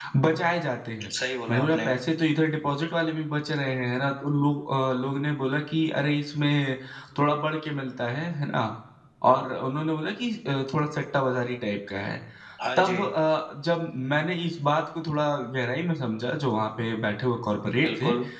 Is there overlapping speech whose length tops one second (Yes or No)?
No